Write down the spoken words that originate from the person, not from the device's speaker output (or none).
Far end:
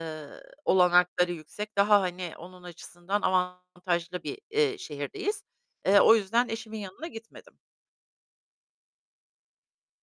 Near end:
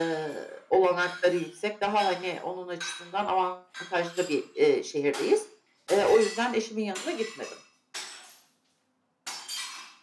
none